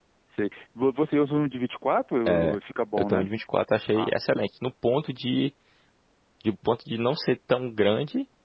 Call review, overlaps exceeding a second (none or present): none